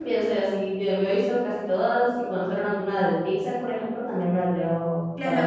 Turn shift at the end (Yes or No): Yes